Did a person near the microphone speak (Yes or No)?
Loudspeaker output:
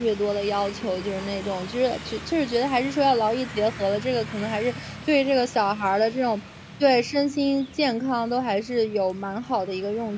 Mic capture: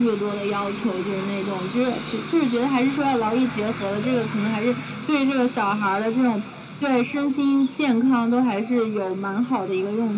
No